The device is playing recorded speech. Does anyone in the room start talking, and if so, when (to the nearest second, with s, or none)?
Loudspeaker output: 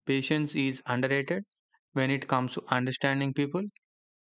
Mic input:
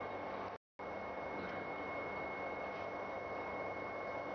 none